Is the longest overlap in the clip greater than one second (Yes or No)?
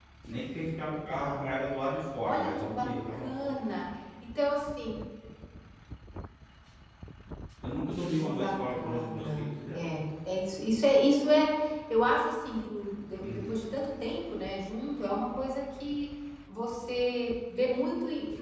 Yes